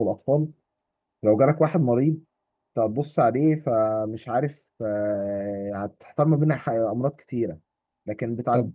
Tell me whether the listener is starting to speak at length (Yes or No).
No